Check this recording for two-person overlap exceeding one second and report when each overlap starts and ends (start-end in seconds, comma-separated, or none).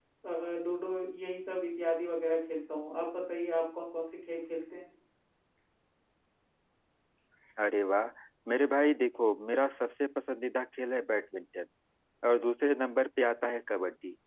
none